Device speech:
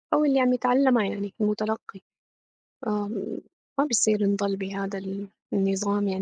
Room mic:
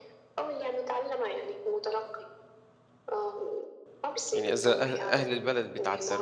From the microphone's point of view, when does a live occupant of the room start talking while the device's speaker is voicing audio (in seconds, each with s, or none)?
4.3 s